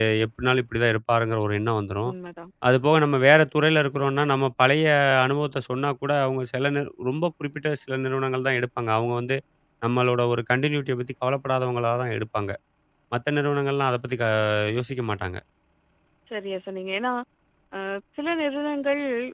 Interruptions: none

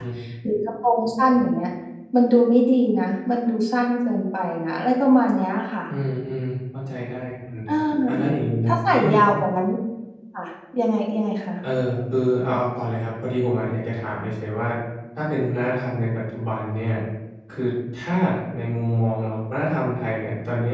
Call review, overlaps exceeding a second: none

